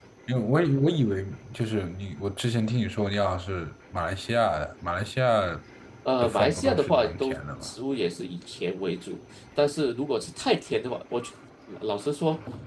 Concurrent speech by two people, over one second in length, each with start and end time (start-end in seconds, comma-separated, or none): 6.2-7.7